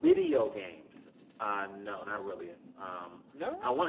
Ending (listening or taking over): listening